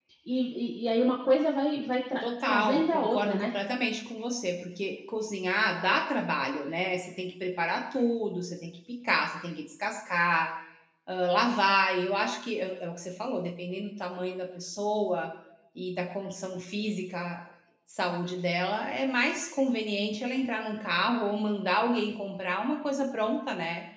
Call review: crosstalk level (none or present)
present